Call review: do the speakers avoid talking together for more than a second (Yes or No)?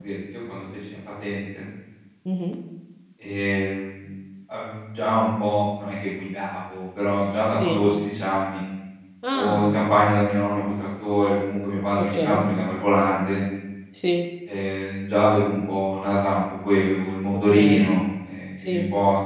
Yes